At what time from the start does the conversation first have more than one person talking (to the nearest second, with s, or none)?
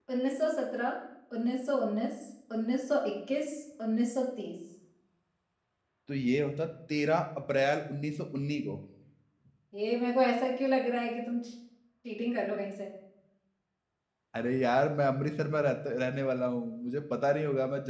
none